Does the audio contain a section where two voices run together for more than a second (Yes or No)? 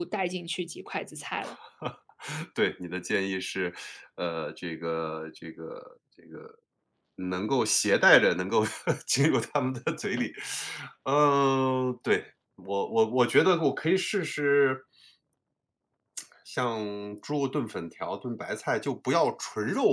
No